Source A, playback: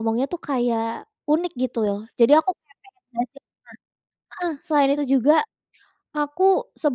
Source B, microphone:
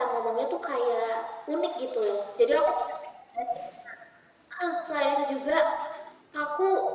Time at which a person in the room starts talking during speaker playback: none

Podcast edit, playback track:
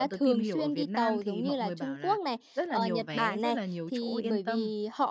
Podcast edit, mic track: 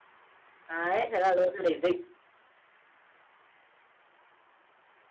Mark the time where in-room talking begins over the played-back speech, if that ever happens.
0.7 s

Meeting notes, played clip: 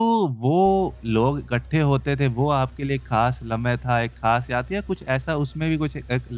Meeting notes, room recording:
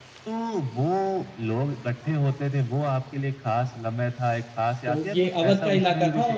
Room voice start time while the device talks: 4.8 s

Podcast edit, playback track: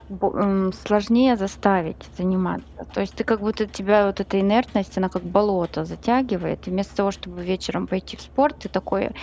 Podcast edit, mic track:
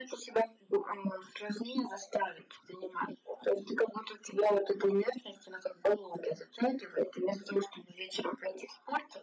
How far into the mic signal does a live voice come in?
none

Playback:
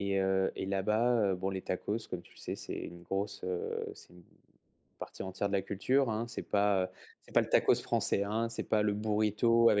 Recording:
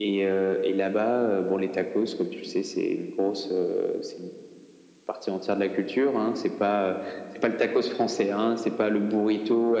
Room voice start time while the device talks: none

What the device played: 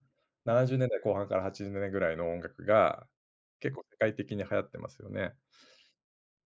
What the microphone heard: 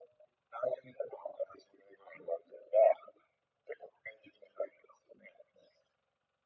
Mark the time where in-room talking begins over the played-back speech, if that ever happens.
none

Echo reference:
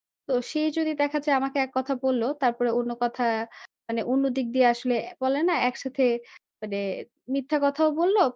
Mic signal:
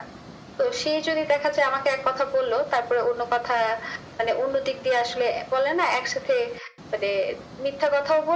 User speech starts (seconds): none

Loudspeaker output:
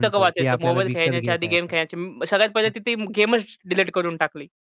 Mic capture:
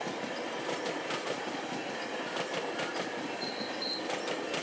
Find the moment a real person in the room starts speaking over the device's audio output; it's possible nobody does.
none

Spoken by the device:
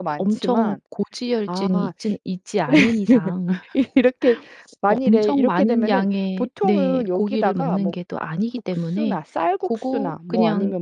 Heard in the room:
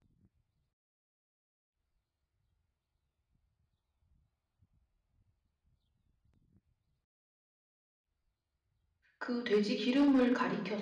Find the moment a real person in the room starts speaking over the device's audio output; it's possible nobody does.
9.2 s

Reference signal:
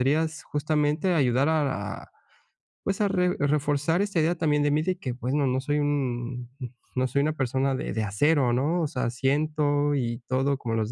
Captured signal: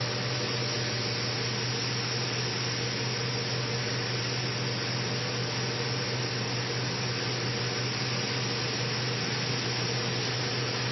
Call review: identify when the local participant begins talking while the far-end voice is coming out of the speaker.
none

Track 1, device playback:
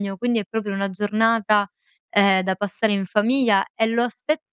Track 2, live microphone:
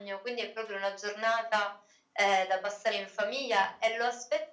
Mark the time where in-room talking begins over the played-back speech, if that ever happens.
none

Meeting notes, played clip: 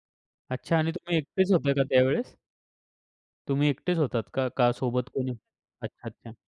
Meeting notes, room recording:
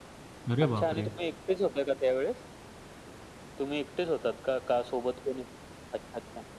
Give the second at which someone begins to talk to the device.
0.5 s

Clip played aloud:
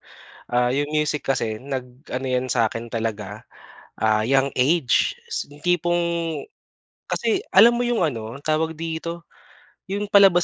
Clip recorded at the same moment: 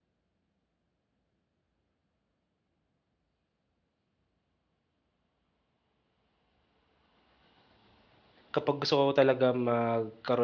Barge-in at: 8.5 s

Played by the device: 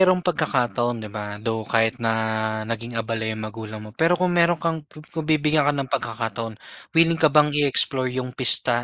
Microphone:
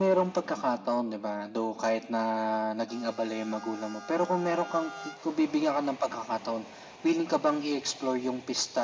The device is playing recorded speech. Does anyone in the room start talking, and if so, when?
none

